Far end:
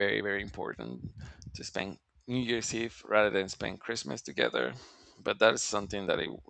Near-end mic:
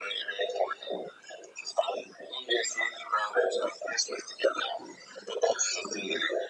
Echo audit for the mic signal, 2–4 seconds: echo only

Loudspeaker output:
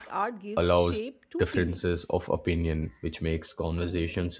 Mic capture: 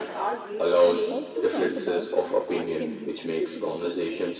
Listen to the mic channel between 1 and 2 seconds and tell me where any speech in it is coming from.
both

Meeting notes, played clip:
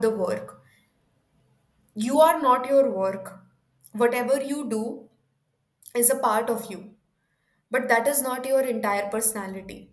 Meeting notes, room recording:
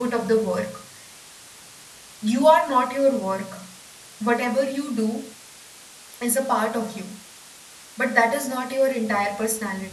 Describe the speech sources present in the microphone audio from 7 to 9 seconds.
echo only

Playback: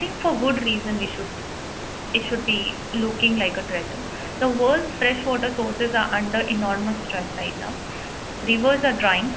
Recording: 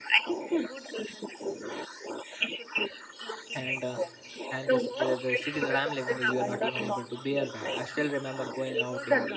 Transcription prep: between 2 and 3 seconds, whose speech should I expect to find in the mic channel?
echo only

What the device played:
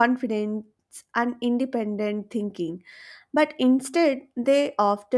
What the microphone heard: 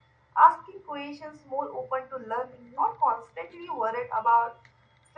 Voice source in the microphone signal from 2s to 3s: user only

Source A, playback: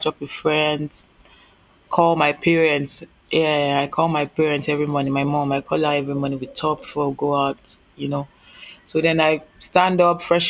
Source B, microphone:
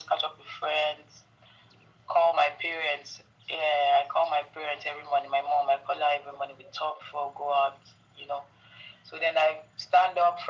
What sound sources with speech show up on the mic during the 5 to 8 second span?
echo only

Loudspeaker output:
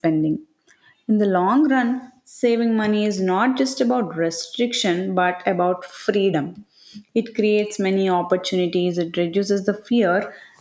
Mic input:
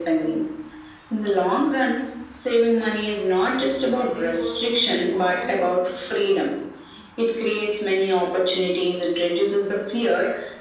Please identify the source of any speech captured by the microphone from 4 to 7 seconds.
both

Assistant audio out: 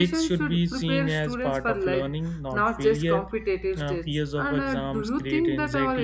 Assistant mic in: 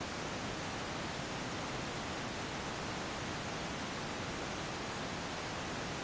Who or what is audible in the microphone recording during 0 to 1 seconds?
neither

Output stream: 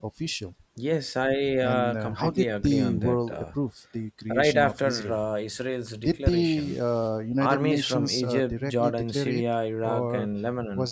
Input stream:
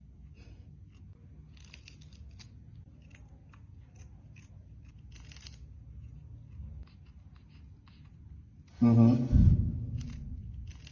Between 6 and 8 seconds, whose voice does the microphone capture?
neither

